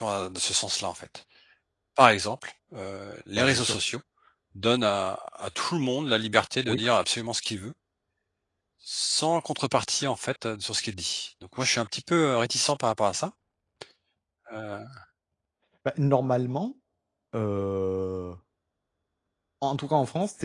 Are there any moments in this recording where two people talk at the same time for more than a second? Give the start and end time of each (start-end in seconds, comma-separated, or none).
none